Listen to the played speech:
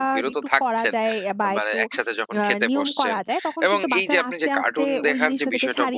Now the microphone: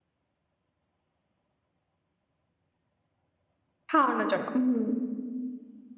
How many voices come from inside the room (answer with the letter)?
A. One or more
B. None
A